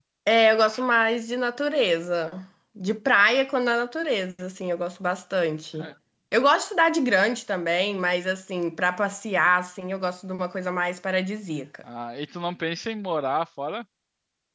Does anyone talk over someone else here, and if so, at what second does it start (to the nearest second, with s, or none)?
none